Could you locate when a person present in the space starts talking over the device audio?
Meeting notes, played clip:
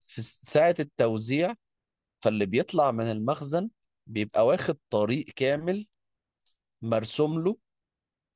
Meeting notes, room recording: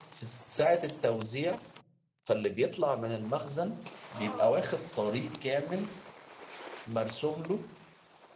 4.2 s

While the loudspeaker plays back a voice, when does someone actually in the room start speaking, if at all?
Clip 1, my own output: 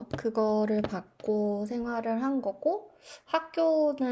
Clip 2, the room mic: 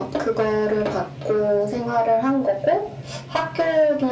none

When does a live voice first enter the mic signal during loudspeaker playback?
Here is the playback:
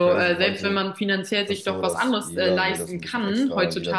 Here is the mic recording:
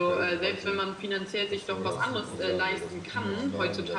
1.8 s

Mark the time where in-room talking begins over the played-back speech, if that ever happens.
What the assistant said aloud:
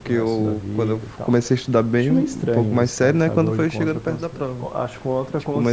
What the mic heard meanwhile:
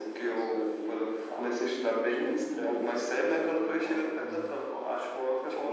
4.2 s

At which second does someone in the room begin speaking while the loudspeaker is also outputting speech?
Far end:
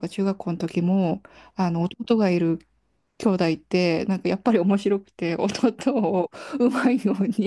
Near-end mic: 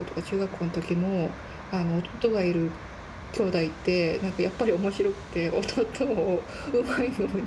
none

